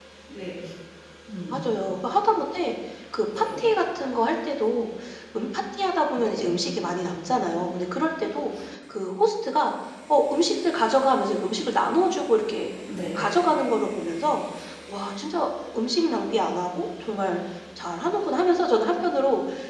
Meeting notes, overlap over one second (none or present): none